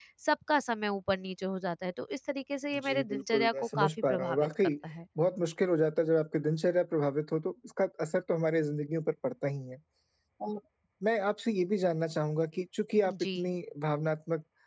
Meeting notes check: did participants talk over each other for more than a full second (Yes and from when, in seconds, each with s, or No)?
Yes, from 2.8 s